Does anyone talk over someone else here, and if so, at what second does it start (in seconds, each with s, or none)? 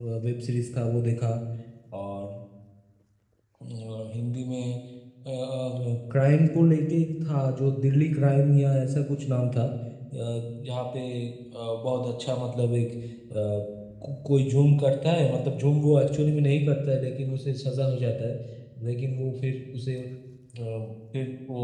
none